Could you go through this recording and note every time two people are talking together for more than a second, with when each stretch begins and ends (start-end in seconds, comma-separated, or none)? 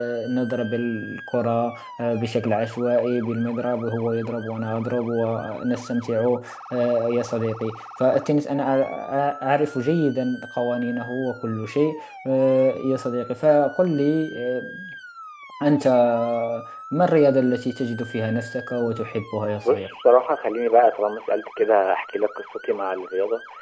none